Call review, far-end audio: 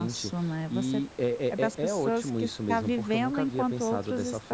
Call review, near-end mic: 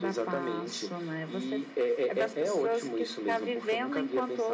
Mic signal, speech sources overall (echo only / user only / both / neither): echo only